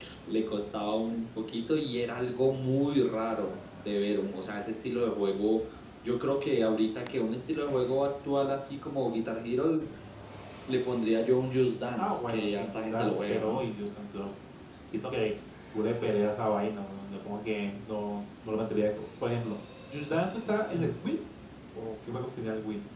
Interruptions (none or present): present